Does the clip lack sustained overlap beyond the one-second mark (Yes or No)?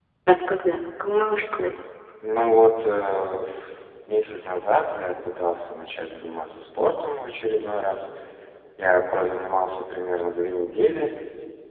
Yes